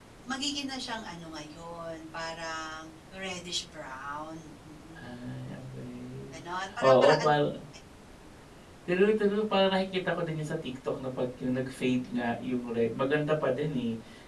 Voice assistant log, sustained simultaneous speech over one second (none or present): none